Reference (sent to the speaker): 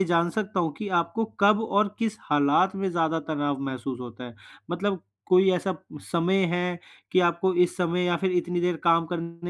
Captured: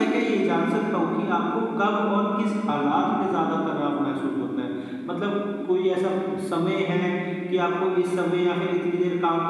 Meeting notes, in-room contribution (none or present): present